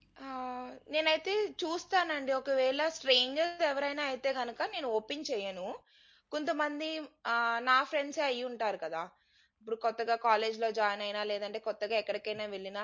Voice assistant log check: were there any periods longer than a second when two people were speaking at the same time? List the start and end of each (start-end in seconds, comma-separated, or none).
none